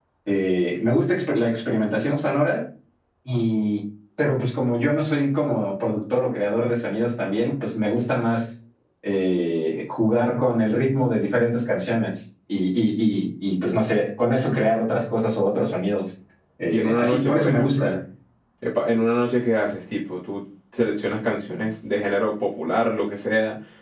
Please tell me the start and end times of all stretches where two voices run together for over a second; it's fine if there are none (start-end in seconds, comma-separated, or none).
16.7-17.9